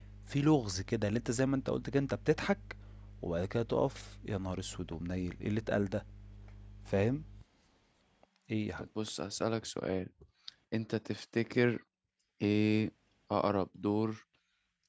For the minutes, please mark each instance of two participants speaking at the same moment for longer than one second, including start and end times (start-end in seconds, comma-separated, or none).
none